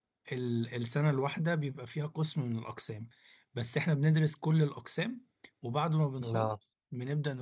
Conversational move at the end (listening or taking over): listening